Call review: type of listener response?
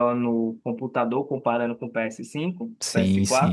taking over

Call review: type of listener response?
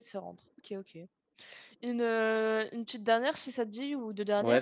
taking over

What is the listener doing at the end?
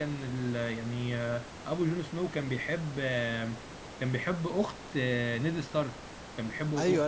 taking over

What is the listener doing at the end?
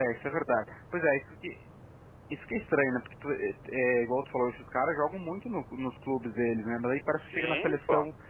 listening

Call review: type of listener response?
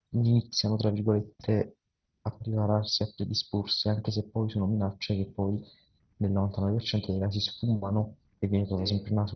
listening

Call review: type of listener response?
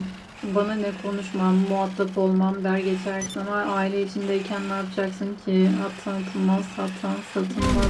taking over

